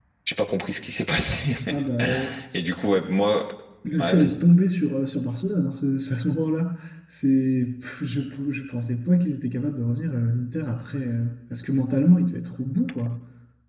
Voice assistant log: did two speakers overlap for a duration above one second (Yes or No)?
No